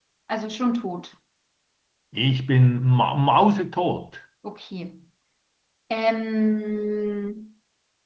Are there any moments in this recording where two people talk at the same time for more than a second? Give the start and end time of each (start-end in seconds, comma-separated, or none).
none